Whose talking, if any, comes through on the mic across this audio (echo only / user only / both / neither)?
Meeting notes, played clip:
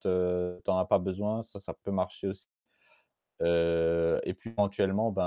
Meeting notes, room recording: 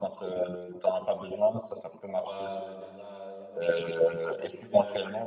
both